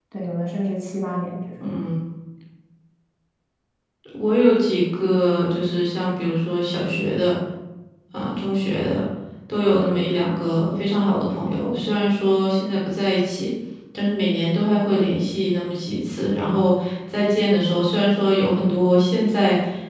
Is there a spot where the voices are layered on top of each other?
No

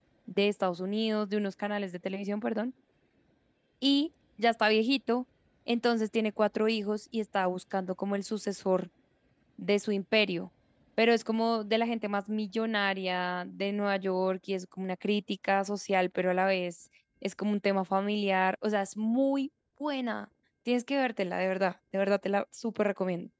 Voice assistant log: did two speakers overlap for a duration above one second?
No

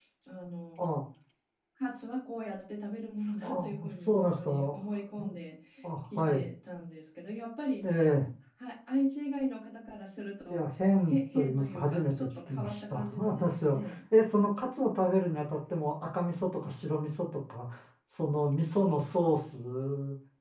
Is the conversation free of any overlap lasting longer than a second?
No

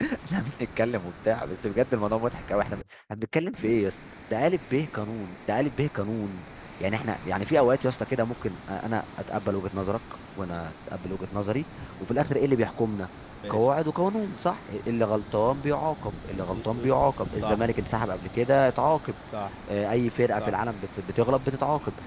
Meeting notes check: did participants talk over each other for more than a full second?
No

